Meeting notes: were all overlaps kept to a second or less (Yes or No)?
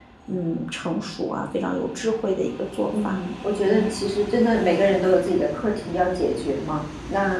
Yes